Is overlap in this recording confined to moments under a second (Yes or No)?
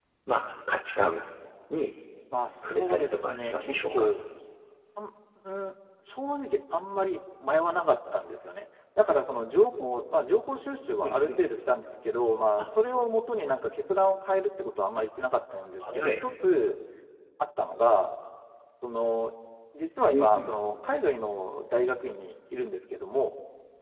No